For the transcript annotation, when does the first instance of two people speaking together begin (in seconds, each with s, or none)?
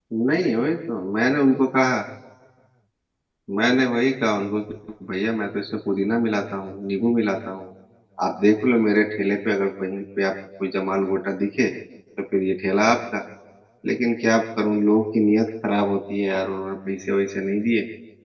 none